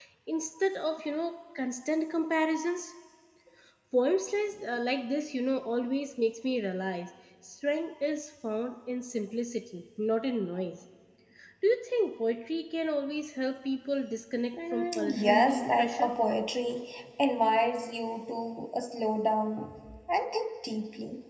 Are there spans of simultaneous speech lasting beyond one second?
Yes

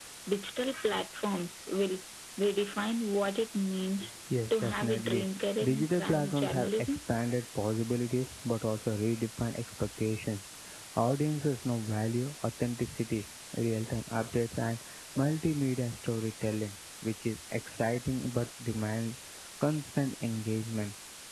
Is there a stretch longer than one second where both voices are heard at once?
Yes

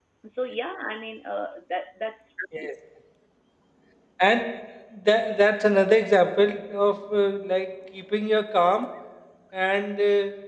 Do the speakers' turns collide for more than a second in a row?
No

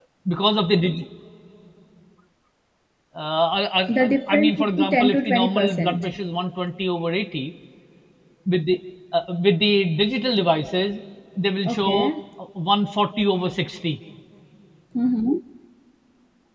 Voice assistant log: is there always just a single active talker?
No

